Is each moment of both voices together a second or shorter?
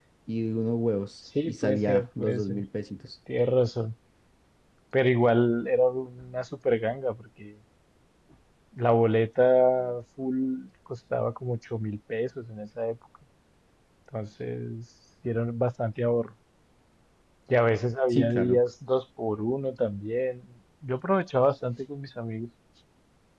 No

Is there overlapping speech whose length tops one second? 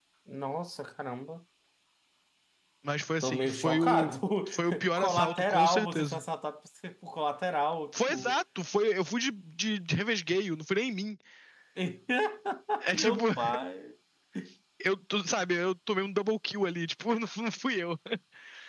Yes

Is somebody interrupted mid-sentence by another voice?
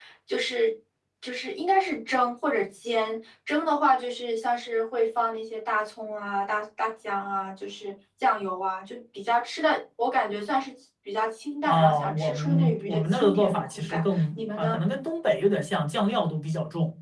Yes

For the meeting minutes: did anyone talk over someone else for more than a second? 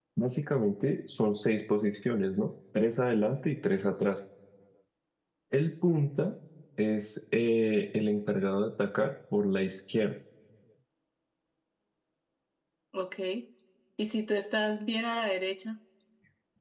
No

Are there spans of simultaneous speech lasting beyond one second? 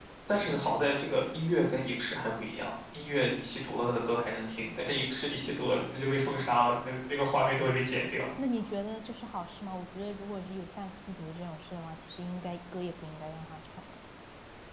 No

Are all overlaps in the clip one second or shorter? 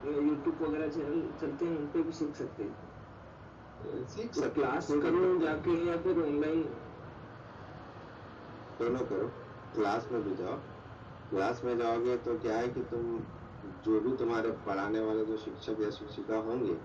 No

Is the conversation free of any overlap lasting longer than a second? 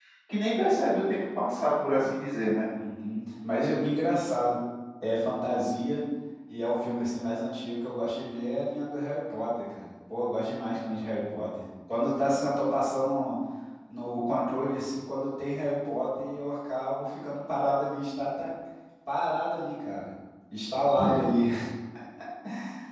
Yes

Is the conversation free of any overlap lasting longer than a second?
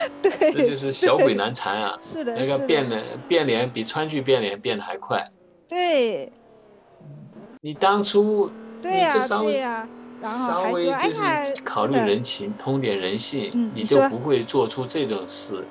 No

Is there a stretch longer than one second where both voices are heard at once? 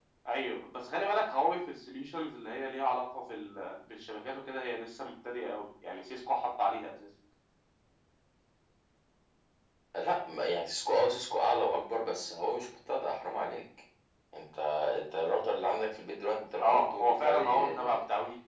Yes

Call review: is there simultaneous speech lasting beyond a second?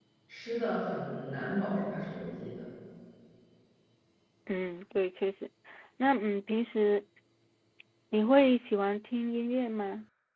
No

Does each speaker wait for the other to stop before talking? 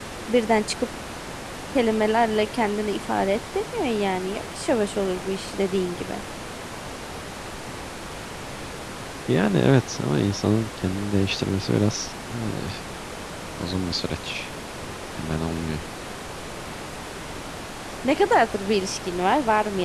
Yes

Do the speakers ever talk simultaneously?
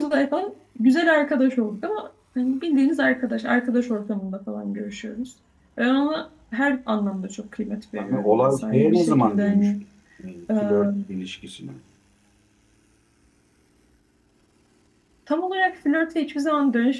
Yes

